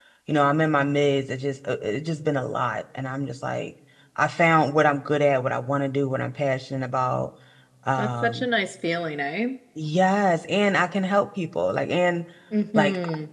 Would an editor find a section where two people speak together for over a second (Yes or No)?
No